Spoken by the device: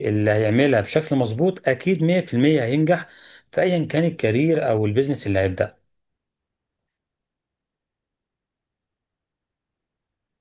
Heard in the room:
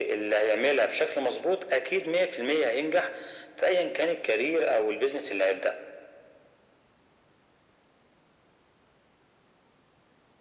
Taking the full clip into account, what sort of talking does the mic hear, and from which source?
echo only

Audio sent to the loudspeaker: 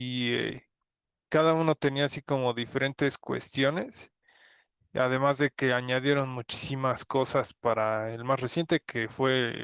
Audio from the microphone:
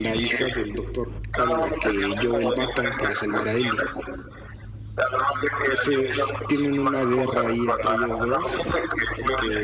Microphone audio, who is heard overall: both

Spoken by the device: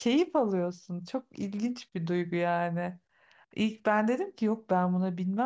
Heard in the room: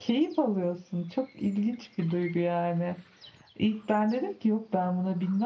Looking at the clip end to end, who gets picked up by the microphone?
echo only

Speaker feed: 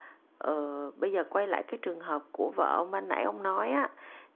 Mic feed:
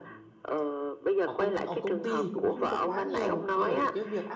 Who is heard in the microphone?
both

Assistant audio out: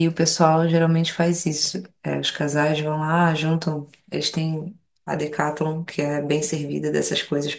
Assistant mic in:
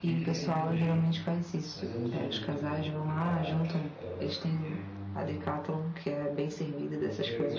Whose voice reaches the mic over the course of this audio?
both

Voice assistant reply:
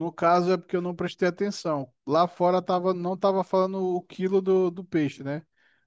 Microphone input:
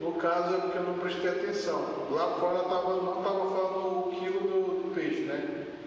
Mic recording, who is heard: echo only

